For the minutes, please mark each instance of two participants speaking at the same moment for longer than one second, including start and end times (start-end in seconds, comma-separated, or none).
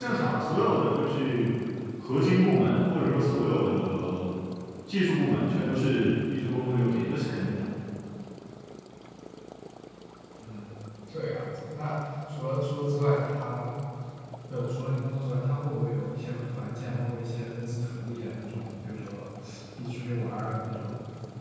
none